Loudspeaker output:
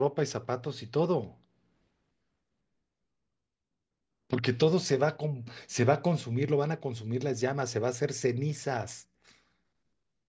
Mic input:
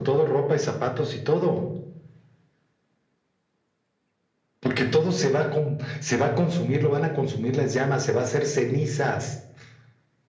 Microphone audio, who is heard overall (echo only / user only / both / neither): echo only